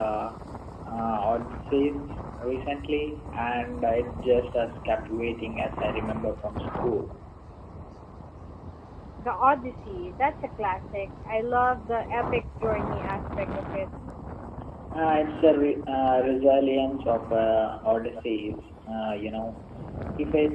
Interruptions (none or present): none